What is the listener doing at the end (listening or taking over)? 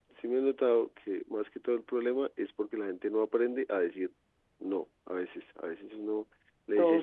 listening